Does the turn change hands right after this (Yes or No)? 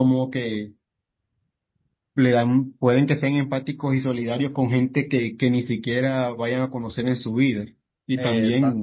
No